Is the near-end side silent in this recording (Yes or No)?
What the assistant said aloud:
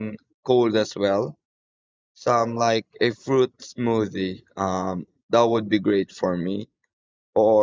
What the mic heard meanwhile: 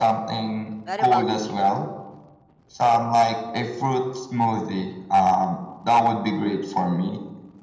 No